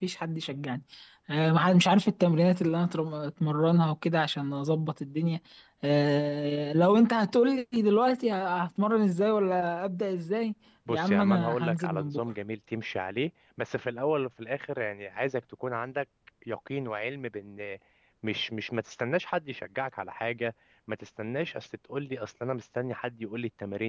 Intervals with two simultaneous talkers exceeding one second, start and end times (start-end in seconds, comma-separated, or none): 10.9-12.2